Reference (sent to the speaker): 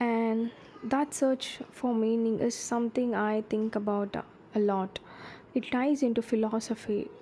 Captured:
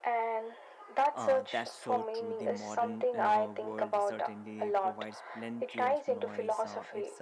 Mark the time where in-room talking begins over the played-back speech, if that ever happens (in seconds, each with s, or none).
1.1 s